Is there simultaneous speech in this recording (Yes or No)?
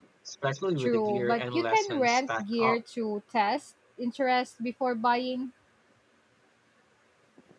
Yes